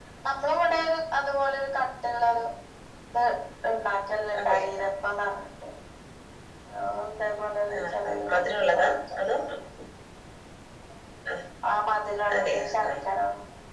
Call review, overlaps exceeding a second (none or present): present